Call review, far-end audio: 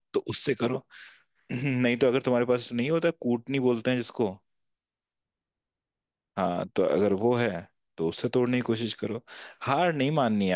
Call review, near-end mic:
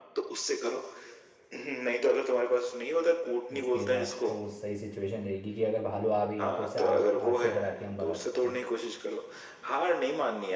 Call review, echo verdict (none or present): present